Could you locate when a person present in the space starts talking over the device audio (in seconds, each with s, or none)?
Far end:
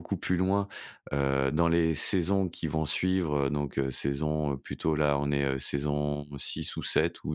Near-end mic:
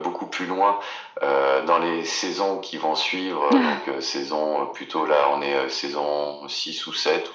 3.5 s